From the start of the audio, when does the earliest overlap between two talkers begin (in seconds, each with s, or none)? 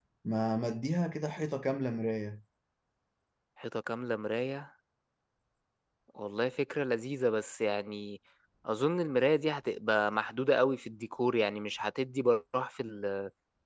none